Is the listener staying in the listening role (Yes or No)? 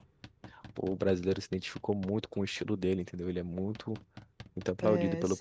No